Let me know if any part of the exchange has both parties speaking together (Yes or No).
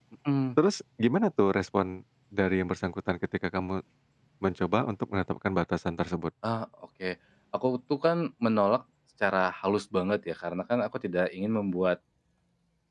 No